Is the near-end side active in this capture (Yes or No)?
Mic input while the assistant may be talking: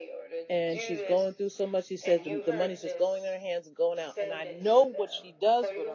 Yes